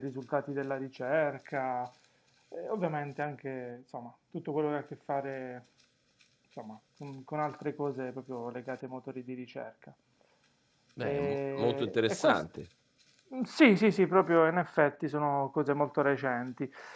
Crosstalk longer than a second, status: present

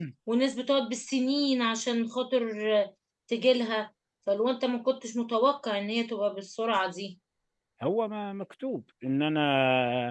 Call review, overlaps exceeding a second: none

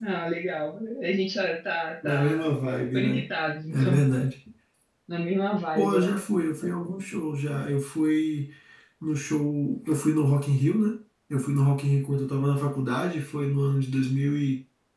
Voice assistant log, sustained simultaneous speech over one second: none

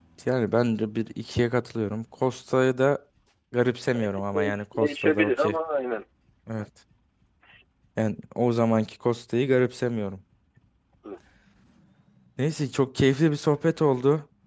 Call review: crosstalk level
present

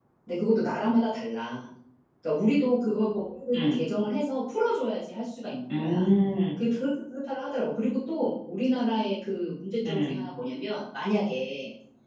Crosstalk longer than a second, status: none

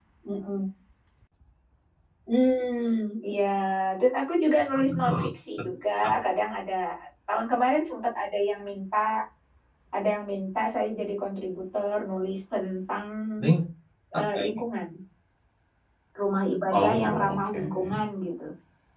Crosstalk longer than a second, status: present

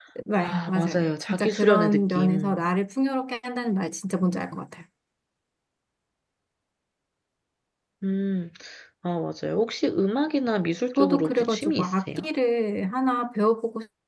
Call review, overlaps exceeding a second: present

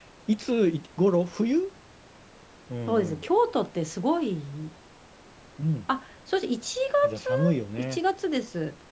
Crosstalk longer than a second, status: none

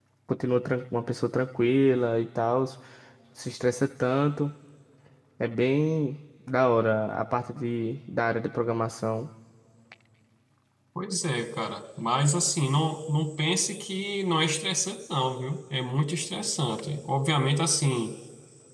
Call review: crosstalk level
none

